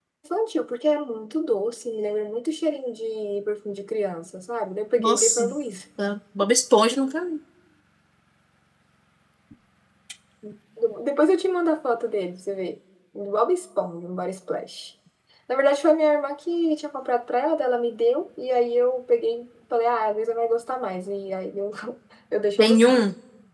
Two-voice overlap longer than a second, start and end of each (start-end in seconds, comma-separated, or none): none